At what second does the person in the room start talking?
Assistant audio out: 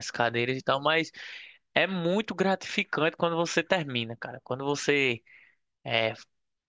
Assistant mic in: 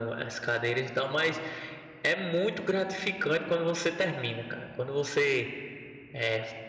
none

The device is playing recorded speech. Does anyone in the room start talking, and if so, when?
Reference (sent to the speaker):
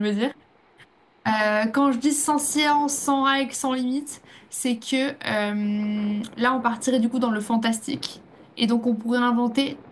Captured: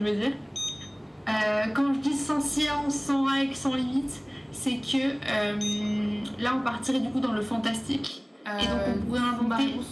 8.5 s

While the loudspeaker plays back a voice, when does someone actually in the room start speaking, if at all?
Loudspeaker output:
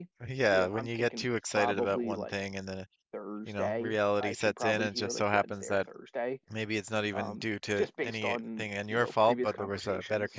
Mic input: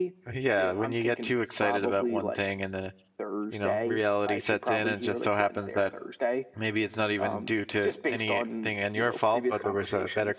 none

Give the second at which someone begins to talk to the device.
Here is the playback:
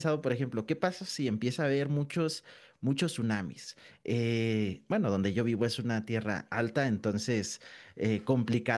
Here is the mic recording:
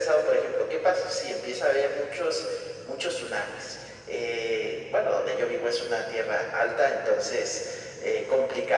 none

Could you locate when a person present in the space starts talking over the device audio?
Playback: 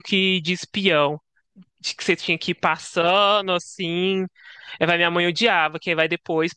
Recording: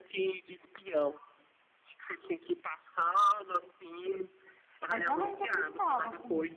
4.9 s

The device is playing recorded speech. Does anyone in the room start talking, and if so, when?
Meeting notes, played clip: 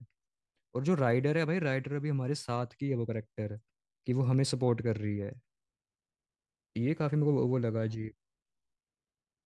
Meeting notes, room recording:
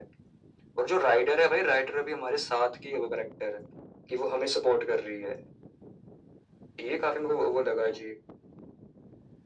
none

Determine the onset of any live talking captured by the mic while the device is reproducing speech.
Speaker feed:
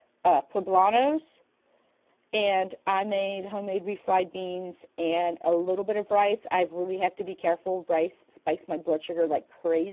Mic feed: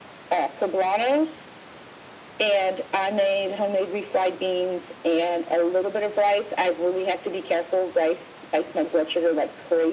none

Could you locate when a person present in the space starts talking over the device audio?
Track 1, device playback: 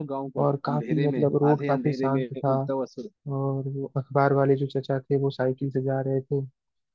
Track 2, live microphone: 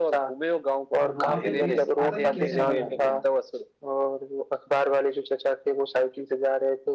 1.0 s

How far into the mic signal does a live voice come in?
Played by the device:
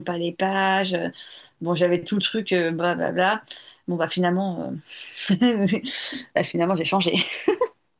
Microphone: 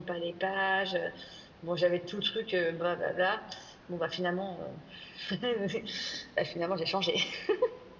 none

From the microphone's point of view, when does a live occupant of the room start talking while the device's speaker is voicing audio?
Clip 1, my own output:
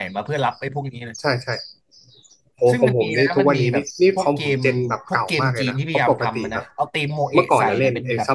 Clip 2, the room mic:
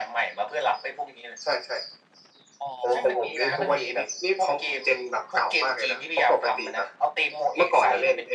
2.6 s

